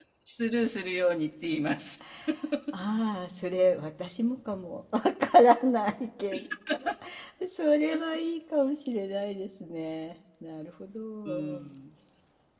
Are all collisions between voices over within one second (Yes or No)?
Yes